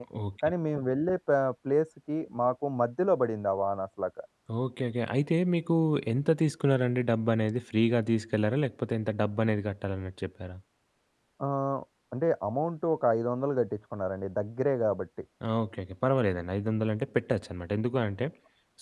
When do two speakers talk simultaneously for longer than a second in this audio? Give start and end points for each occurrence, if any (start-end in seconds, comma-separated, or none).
none